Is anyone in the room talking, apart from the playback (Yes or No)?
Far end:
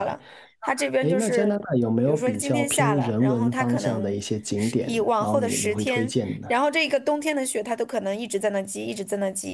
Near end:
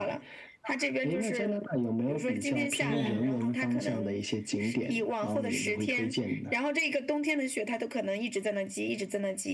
Yes